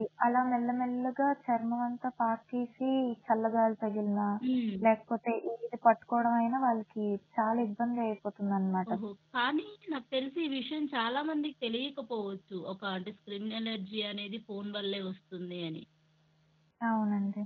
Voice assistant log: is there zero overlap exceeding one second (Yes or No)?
Yes